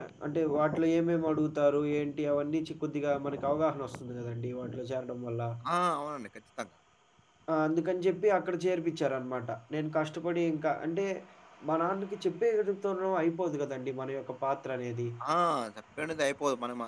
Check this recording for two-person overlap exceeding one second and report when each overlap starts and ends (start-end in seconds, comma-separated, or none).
none